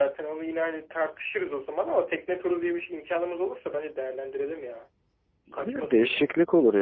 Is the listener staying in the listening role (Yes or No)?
No